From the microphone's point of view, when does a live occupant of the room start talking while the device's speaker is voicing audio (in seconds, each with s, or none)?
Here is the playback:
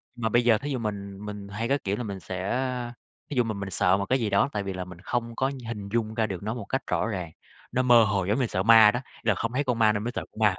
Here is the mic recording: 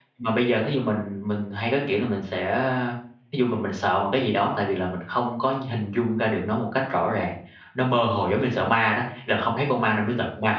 none